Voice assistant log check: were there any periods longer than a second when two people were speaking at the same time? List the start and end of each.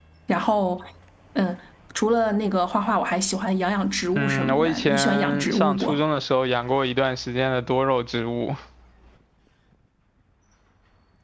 4.2-5.8

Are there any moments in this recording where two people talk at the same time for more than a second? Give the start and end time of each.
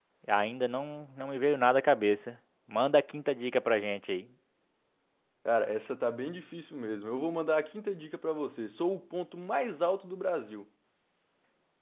none

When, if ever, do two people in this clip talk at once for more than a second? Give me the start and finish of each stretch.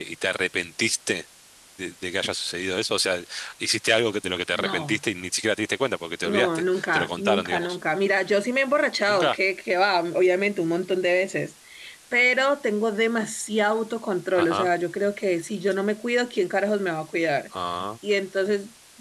6.2-7.8

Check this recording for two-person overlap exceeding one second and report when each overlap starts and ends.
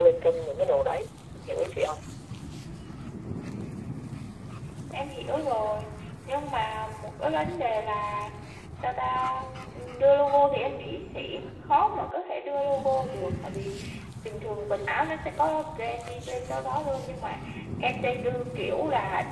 none

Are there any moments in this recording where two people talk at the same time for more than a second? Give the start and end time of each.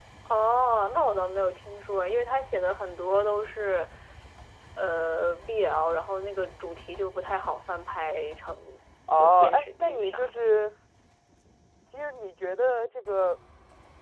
9.2-10.4

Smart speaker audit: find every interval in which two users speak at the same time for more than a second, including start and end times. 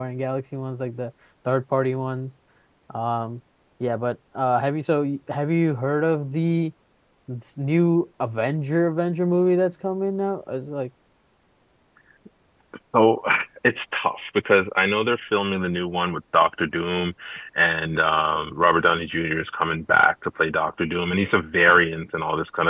none

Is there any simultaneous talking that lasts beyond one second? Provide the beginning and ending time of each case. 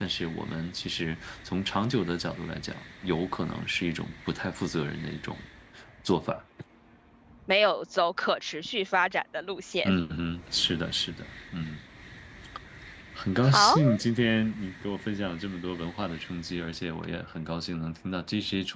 none

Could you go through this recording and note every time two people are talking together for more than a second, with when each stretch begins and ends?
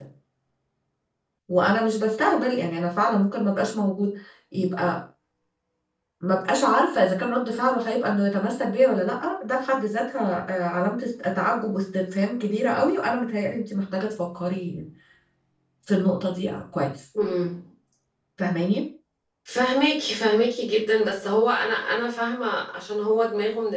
none

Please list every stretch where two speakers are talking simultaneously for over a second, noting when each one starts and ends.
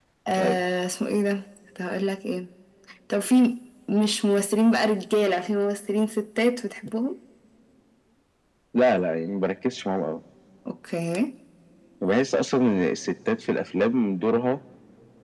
none

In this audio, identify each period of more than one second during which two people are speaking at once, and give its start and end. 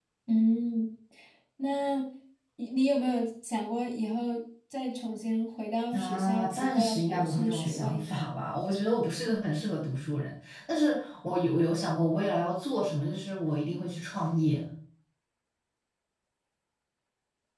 5.9-8.1

